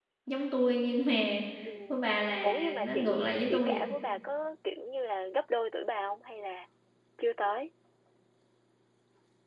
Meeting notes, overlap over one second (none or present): present